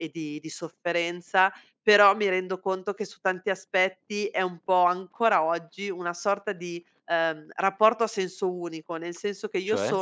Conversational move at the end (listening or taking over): listening